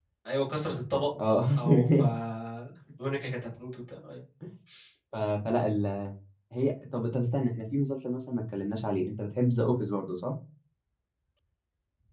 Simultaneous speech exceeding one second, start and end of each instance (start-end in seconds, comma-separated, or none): none